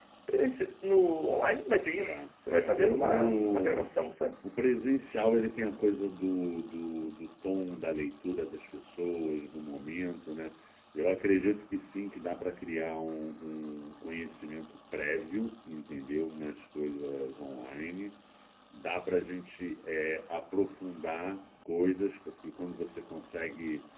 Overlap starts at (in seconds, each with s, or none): 2.0 s